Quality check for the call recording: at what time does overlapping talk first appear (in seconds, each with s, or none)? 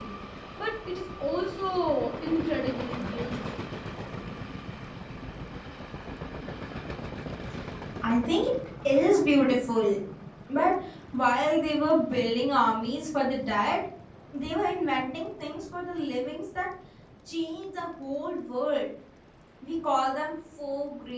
none